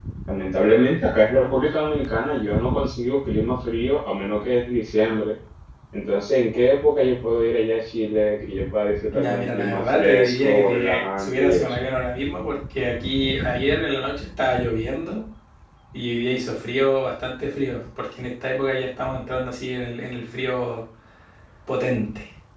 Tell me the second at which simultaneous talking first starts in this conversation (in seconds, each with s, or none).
9.1 s